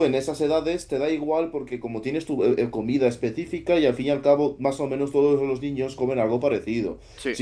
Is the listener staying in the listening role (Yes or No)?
Yes